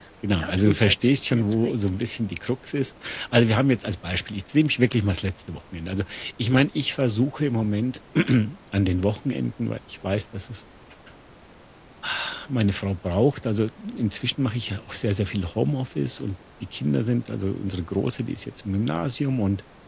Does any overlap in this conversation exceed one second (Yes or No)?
Yes